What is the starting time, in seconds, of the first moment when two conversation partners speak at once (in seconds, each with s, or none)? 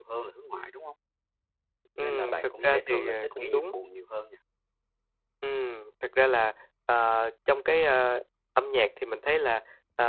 2.0 s